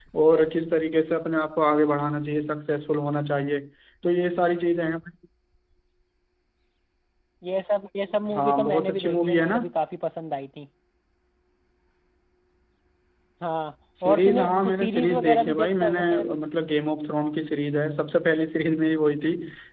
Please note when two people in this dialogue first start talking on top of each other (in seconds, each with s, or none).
8.3 s